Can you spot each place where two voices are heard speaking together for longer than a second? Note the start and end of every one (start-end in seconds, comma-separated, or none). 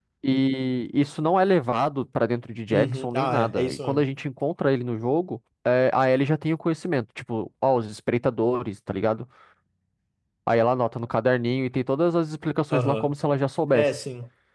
2.7-4.0